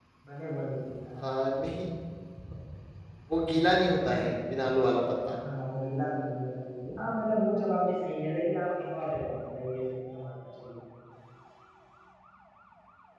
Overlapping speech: No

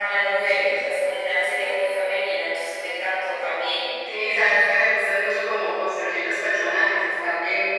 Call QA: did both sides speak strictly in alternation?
Yes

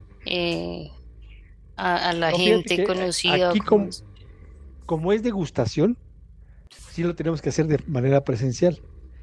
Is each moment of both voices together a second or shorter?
No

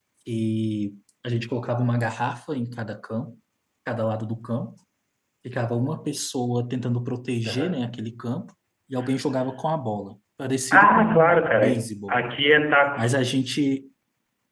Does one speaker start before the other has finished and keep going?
Yes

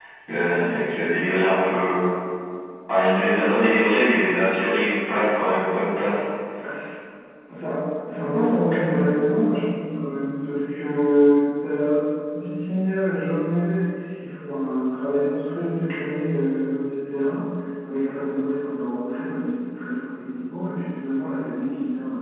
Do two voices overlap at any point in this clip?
No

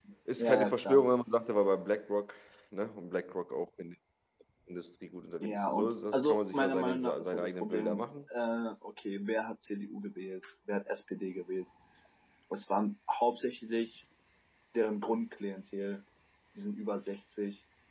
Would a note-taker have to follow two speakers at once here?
Yes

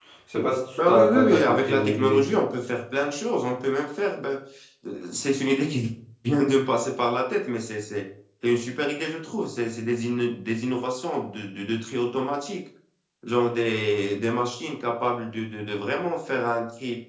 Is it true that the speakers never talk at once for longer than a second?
No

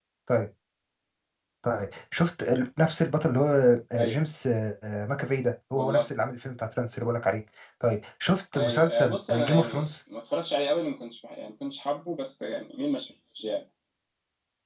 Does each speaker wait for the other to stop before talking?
No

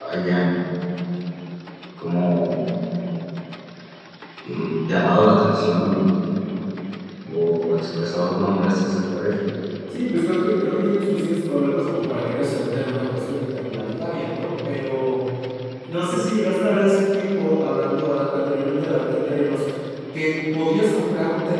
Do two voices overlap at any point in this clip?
No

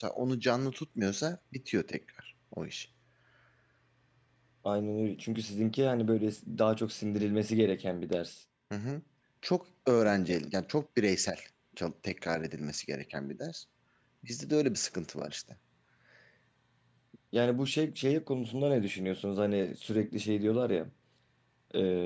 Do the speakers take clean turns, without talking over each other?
Yes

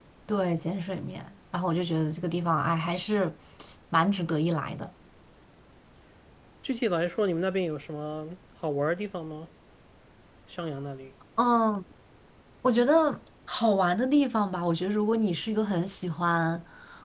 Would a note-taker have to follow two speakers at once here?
No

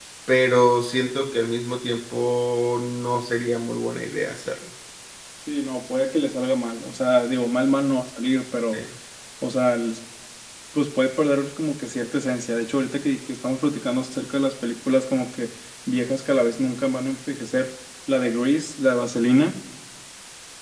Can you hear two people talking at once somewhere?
No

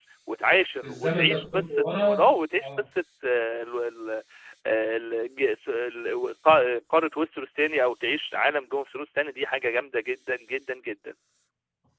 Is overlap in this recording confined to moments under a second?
No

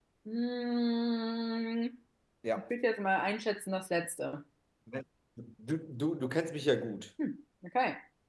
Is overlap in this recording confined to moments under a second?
Yes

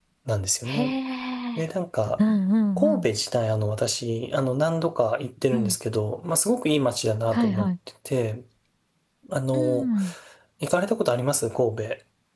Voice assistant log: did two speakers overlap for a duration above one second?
No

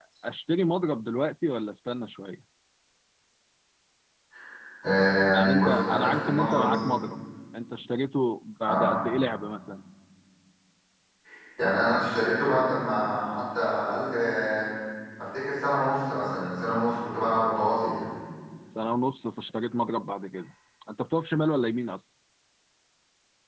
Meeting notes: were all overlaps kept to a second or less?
No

